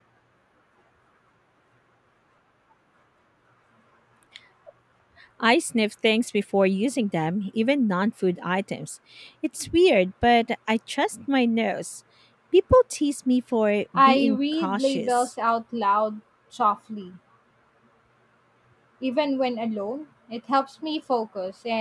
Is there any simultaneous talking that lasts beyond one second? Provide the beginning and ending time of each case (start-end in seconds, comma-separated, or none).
13.9-15.3